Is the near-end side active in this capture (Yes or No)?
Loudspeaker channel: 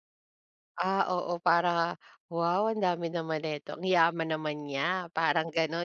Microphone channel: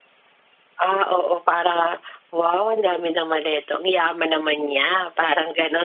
No